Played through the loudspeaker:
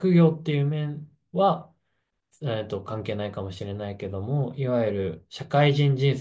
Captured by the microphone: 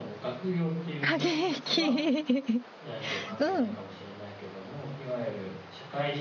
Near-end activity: present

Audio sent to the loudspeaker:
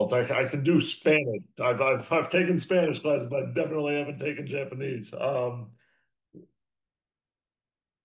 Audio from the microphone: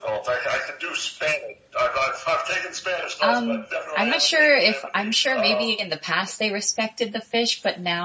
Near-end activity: present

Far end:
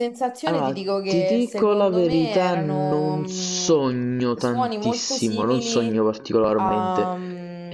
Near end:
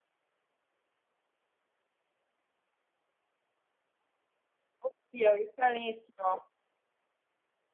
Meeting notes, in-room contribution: present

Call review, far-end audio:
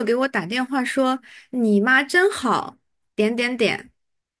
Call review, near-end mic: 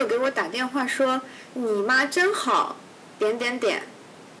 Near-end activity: none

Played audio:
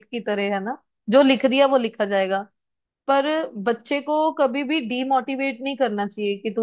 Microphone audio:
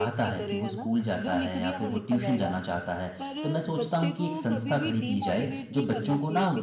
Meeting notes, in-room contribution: present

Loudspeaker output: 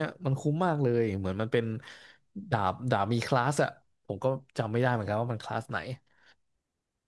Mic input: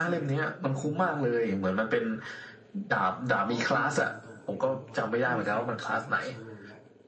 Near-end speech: present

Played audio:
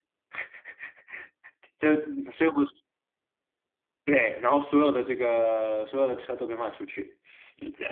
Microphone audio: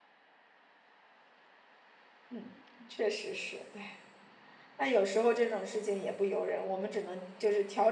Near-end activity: present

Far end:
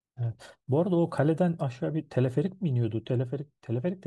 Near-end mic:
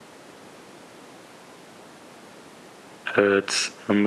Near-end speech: present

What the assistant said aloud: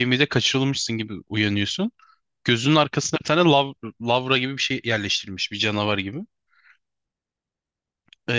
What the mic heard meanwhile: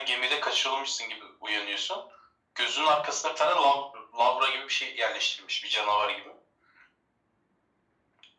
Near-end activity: none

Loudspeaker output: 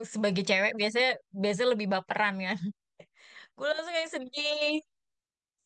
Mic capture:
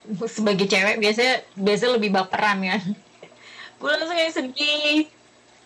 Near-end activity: none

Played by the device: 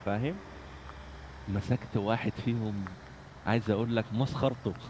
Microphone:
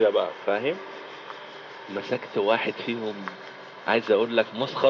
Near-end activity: none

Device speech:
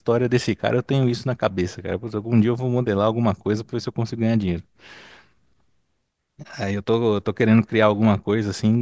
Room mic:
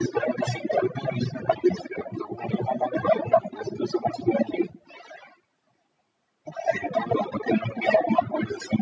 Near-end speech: none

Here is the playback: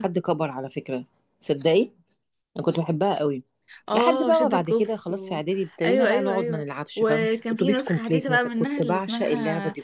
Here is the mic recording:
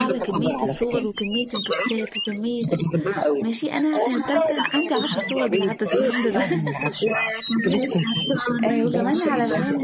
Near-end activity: present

